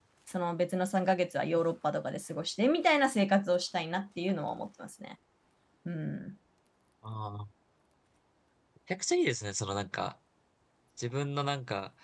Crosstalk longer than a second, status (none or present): none